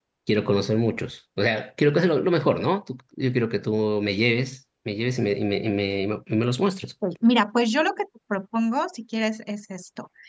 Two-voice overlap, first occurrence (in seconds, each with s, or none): none